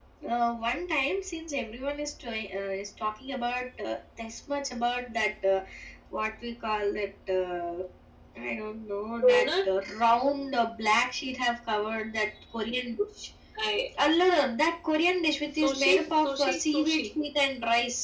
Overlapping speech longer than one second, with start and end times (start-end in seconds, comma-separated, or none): 15.6-17.0